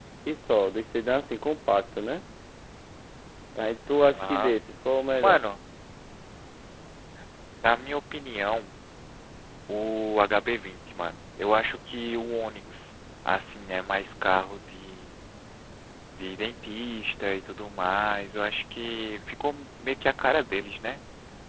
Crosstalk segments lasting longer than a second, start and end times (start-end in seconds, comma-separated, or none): none